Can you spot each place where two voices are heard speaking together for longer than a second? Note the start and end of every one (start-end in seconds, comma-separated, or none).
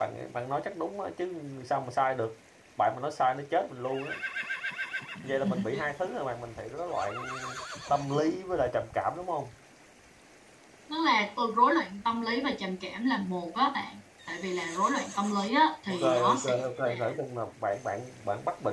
15.9-17.2